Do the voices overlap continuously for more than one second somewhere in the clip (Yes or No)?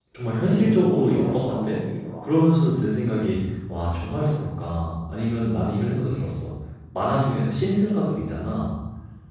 Yes